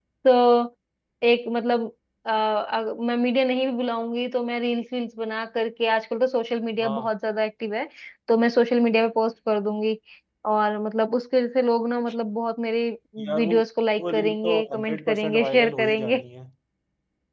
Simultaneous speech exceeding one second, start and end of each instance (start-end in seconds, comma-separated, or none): 14.0-16.2